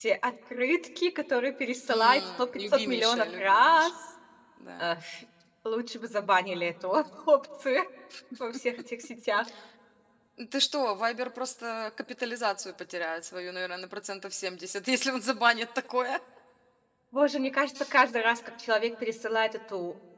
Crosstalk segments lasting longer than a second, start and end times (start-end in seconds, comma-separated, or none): 1.9-3.9